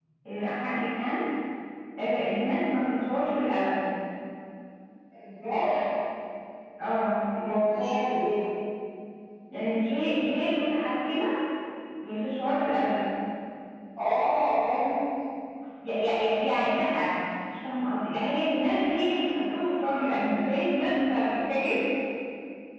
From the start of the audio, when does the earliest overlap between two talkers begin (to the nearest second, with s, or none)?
none